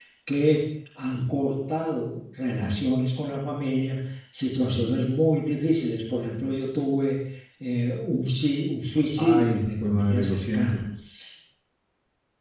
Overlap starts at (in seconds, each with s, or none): 9.2 s